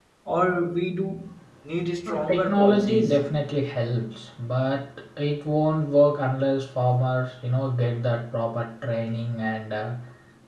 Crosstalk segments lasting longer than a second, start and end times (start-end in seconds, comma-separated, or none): 2.1-3.3